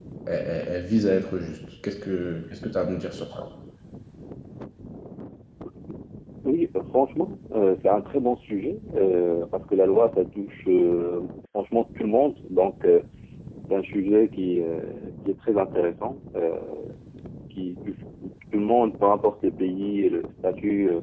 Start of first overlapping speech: none

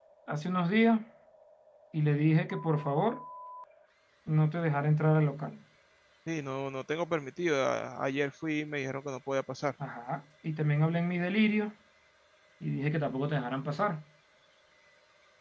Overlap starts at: none

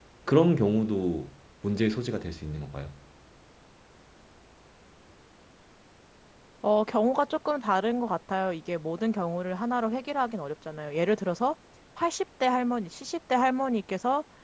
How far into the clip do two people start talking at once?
none

